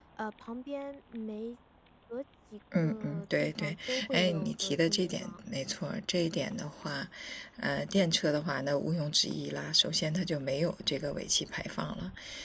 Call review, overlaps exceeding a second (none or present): present